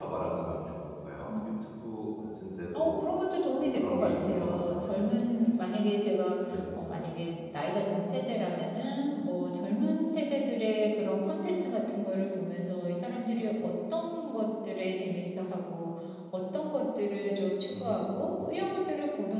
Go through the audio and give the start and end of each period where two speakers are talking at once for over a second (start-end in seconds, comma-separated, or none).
3.6-5.0